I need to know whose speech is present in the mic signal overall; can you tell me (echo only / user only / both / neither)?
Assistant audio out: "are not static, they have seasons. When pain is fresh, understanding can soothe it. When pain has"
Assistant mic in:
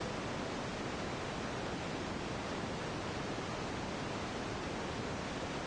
neither